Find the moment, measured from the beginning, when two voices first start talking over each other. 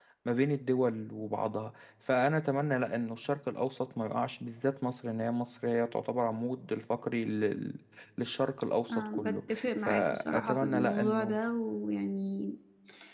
8.9 s

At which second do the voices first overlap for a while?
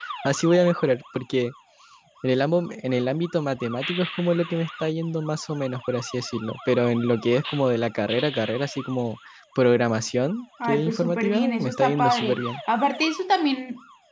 10.6 s

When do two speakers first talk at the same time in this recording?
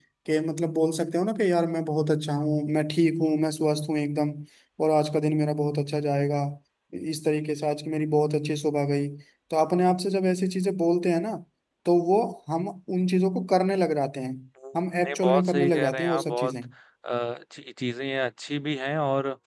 15.0 s

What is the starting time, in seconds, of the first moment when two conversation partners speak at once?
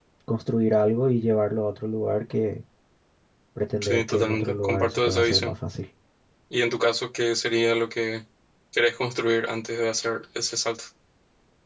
3.8 s

